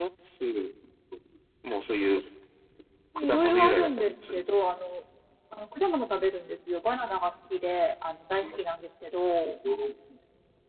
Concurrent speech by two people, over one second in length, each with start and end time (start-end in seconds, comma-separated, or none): 3.2-4.4